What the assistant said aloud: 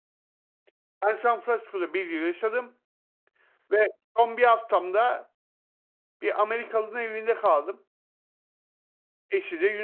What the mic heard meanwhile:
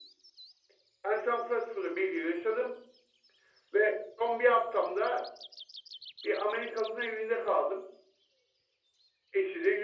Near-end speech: none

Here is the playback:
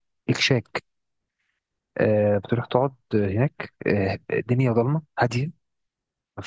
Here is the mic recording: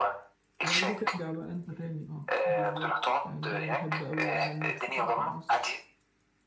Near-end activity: present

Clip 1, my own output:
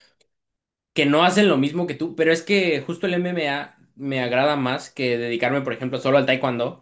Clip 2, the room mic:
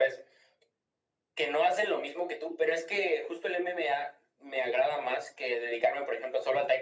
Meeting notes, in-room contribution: none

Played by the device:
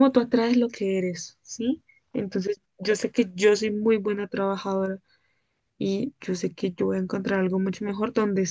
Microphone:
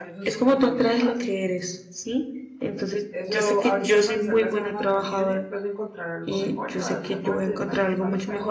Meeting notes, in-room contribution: present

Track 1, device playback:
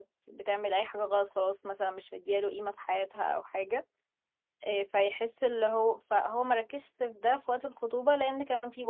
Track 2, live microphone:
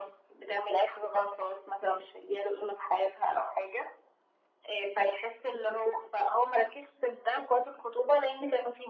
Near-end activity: none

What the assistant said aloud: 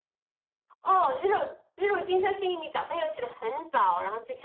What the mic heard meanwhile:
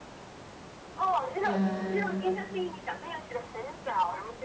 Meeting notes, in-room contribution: present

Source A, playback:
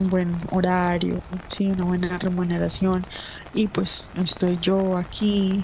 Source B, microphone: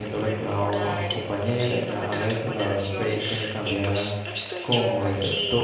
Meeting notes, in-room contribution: present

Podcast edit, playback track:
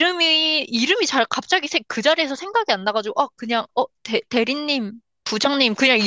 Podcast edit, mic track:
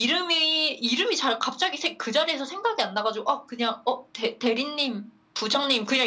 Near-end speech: none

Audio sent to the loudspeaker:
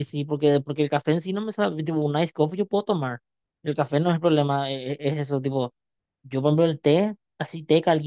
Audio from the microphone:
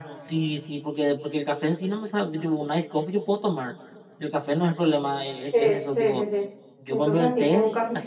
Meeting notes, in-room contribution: present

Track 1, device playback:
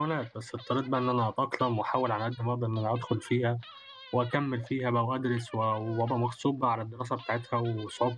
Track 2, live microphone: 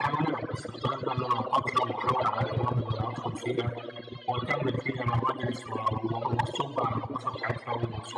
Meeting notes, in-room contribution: present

